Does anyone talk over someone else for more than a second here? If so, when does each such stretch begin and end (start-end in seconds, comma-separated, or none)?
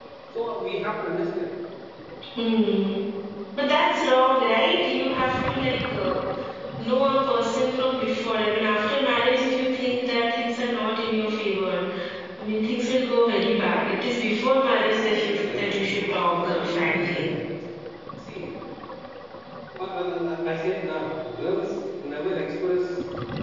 14.8-17.2